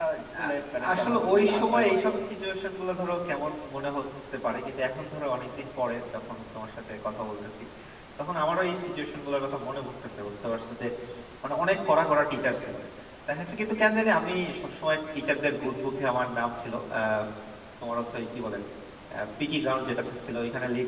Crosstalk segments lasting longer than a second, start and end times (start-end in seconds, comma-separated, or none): 0.9-2.1